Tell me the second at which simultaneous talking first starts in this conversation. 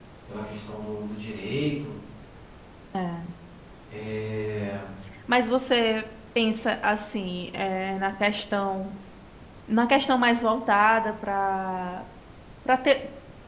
none

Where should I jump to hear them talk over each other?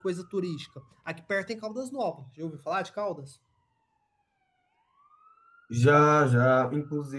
none

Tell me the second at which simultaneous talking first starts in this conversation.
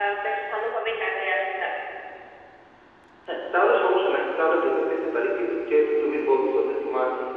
none

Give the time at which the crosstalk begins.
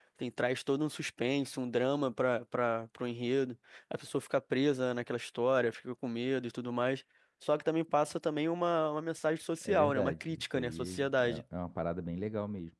10 s

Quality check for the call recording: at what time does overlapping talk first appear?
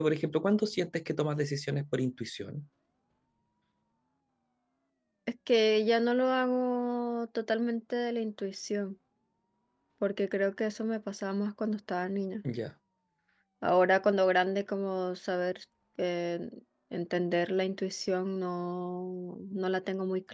none

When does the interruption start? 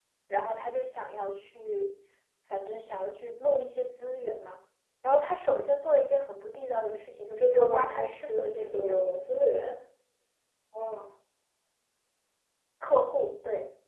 7 s

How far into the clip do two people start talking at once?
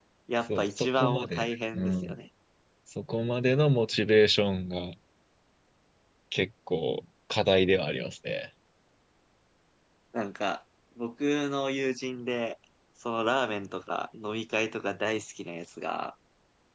1 s

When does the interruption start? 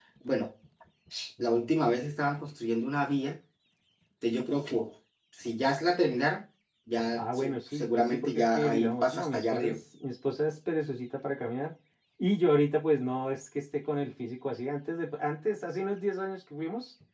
7 s

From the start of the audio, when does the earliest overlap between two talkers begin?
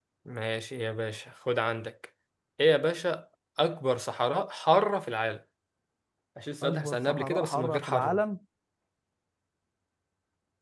7 s

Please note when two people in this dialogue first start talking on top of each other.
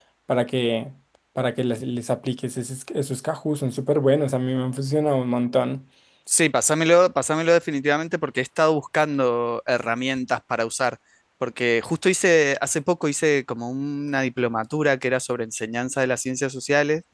none

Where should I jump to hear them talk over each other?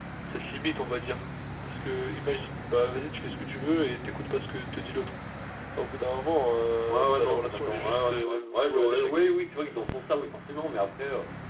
7 s

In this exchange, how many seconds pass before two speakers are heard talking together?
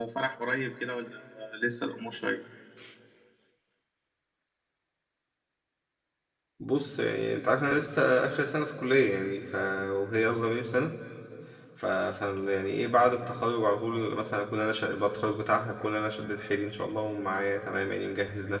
none

